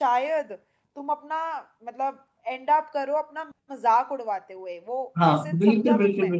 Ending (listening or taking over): taking over